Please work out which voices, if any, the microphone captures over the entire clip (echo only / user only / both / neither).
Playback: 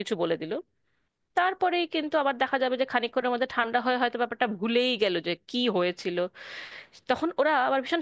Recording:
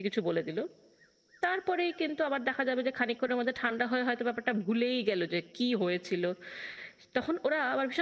echo only